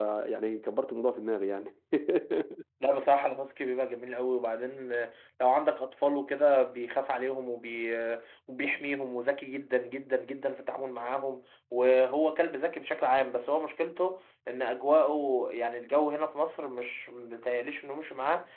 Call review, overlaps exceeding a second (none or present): none